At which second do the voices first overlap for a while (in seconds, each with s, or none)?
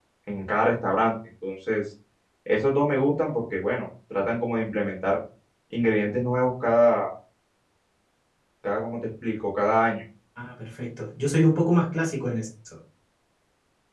none